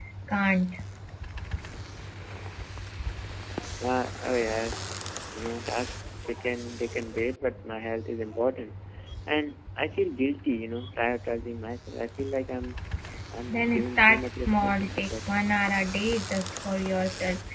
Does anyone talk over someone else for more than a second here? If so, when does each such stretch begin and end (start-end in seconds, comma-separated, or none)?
13.5-15.3